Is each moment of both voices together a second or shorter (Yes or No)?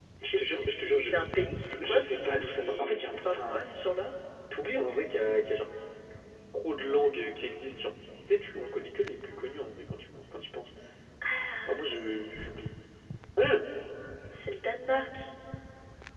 No